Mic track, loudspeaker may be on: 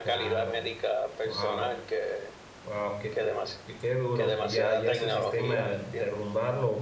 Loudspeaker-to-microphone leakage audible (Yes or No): Yes